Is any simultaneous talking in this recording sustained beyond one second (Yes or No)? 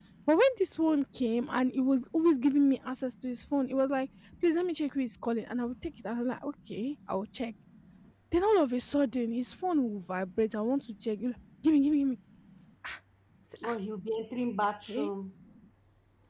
No